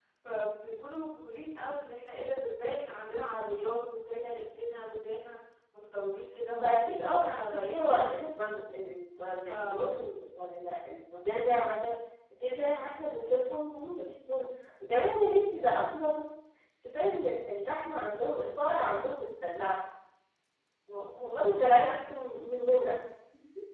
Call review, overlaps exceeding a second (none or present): present